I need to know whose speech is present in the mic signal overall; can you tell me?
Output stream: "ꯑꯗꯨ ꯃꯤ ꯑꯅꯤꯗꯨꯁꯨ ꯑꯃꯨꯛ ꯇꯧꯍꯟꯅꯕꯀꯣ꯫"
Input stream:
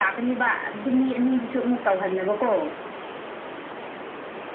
echo only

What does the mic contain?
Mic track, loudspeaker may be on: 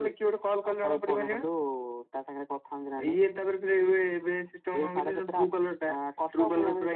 echo only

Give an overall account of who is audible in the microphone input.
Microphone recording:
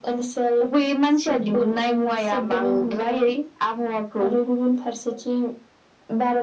echo only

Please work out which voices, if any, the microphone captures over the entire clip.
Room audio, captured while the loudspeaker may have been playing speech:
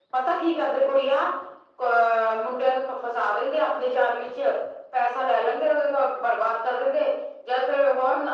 echo only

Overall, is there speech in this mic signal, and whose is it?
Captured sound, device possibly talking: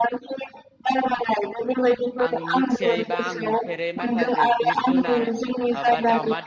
both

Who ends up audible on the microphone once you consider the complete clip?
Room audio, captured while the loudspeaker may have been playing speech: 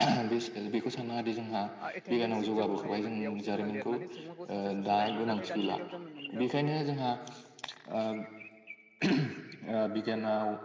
both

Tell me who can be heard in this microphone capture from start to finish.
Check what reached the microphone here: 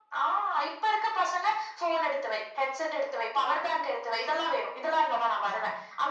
echo only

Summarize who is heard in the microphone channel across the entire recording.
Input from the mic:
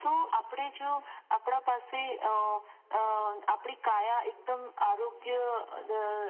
echo only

